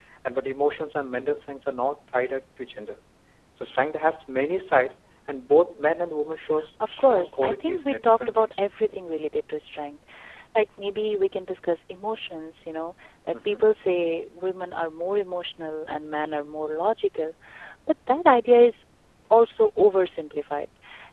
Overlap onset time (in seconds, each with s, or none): 6.9 s